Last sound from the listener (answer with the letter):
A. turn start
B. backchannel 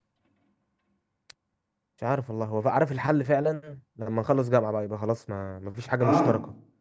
A